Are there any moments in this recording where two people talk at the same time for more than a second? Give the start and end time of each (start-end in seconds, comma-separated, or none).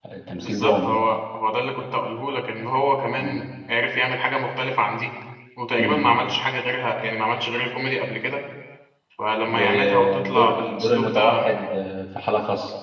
9.5-11.5